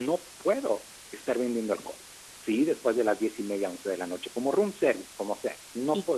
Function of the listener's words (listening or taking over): taking over